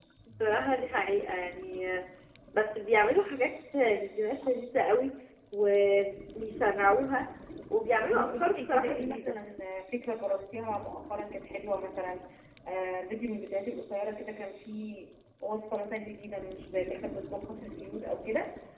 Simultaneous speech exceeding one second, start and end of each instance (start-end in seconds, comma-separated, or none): 8.0-9.4